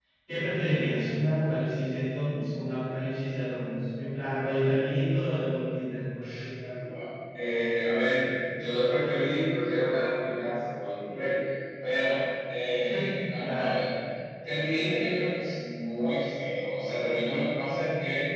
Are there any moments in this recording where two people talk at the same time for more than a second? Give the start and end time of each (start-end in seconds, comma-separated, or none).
none